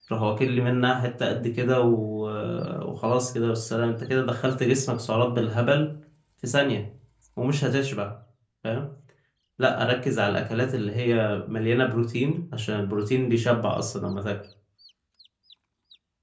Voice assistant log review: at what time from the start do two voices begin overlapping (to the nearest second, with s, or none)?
none